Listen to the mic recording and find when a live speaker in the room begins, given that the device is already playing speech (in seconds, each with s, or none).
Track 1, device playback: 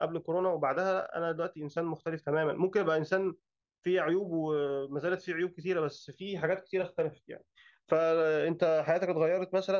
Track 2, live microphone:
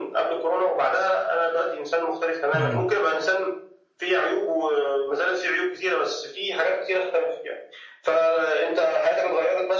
2.5 s